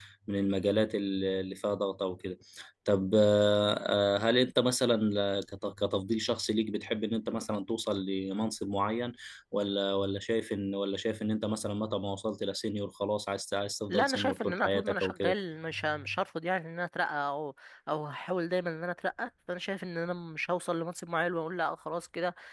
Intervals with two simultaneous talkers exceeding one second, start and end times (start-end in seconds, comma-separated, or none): 13.9-15.3